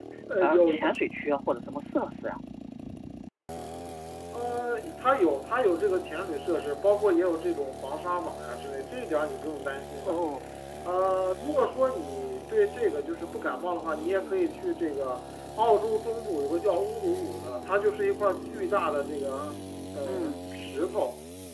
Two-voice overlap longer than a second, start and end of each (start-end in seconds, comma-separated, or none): none